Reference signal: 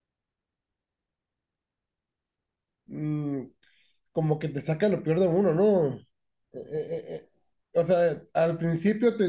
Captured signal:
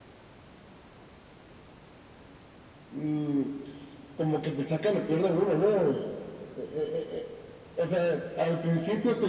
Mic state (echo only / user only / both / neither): echo only